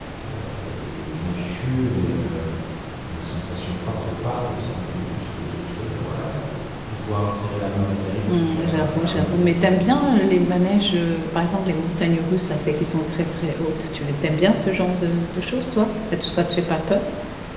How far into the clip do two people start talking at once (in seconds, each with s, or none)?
8.3 s